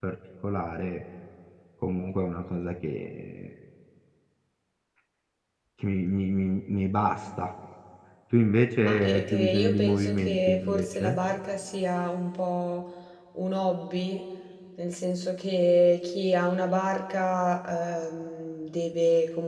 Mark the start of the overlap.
8.8 s

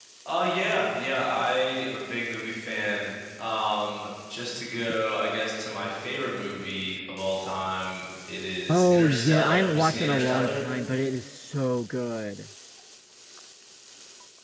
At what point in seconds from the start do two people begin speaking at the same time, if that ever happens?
8.7 s

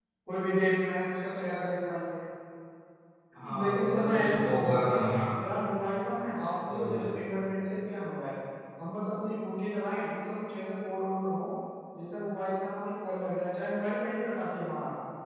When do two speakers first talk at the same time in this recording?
3.6 s

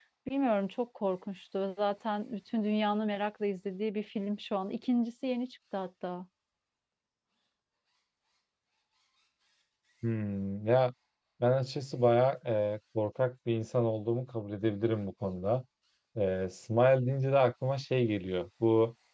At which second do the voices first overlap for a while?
none

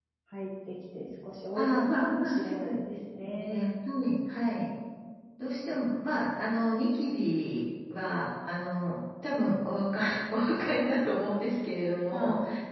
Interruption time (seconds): 1.6 s

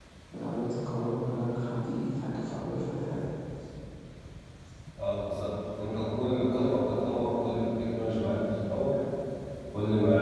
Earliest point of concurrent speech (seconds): none

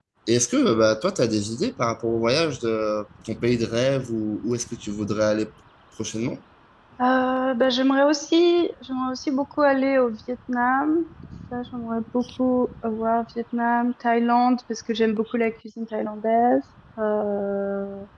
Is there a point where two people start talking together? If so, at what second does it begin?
none

